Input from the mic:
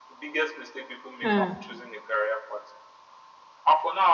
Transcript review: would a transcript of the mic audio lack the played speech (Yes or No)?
No